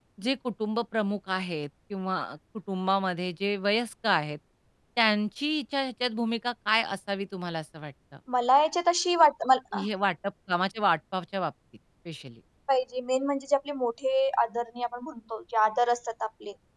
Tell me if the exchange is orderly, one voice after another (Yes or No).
Yes